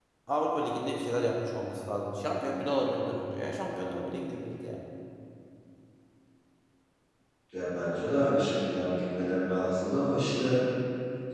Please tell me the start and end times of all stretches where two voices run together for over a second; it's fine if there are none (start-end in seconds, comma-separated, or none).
none